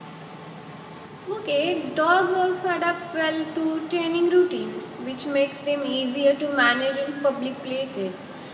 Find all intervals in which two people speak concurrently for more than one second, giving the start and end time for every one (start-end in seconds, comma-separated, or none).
none